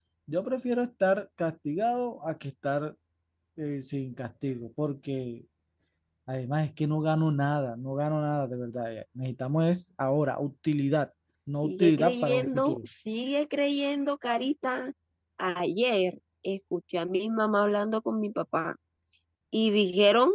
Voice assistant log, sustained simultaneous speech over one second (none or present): present